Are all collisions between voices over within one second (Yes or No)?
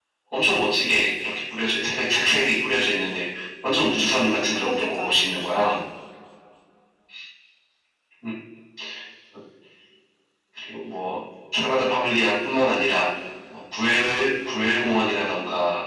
No